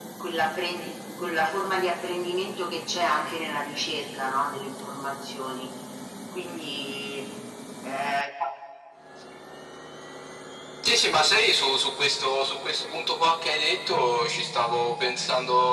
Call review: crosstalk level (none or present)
none